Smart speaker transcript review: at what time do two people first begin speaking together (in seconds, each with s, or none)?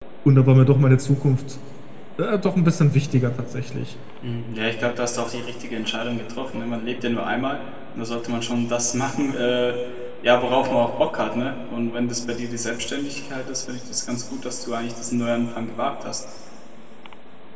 none